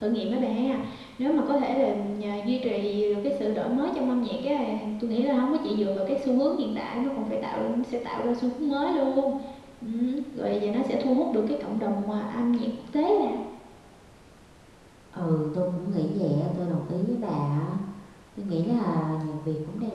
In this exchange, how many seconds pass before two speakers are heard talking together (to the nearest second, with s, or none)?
none